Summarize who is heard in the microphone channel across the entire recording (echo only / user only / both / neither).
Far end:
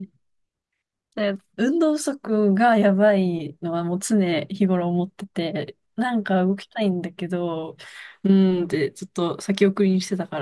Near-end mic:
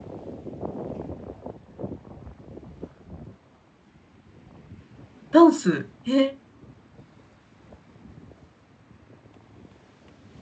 user only